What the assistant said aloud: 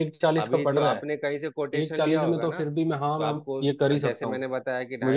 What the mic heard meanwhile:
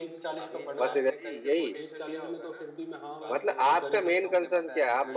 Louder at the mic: user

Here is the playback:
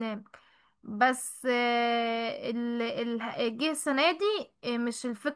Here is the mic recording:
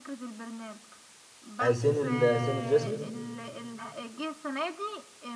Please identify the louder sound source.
user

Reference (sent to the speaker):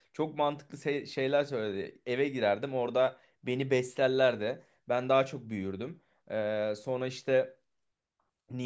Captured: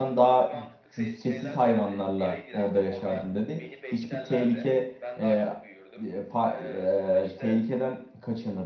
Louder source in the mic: user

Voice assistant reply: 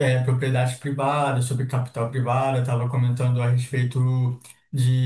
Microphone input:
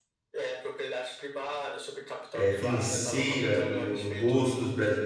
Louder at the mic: user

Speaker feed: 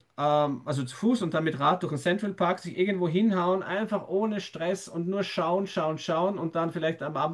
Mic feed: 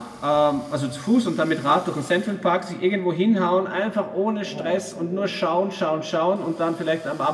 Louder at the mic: echo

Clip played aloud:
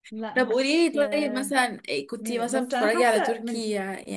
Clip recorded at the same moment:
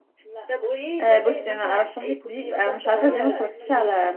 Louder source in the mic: user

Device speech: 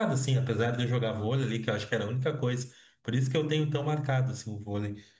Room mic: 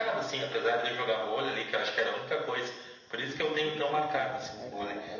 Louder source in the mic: echo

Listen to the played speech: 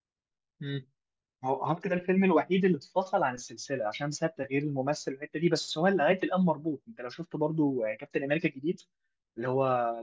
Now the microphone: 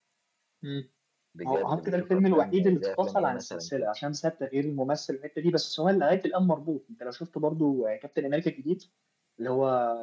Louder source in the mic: echo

